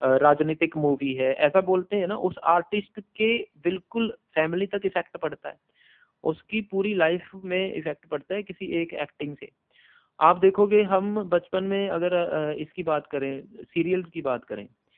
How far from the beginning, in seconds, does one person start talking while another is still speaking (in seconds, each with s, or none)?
none